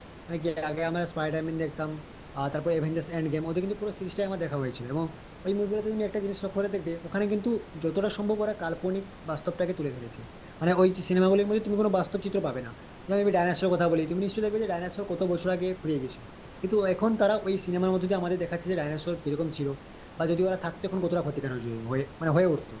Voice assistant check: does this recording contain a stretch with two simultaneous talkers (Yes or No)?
No